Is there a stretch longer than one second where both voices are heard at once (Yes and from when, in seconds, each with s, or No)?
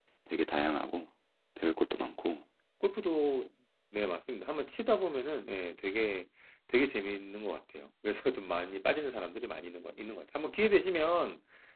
No